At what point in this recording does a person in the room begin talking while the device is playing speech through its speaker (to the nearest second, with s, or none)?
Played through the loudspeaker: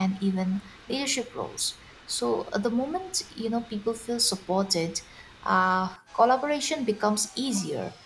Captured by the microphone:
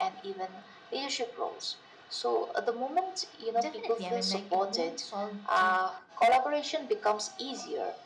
4 s